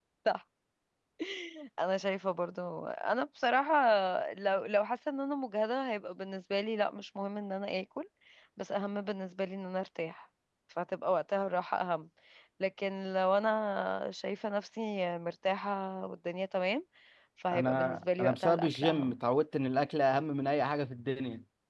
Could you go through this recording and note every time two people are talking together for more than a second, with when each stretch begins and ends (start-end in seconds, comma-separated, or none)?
17.5-19.1